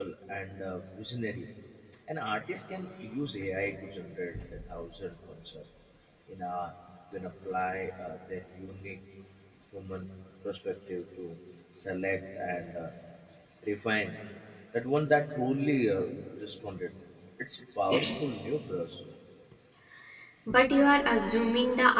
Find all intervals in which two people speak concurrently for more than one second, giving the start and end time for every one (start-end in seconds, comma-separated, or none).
none